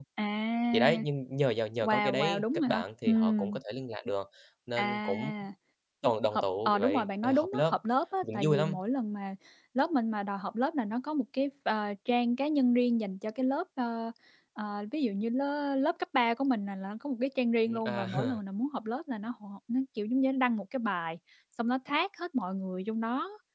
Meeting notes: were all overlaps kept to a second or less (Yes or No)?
No